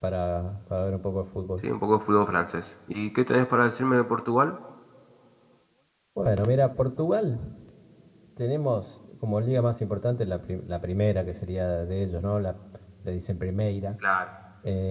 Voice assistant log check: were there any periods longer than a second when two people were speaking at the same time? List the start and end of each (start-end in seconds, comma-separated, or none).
none